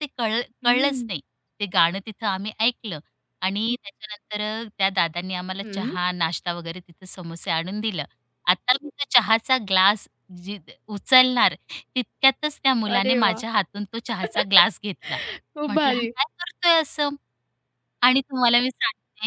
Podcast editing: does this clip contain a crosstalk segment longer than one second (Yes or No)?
No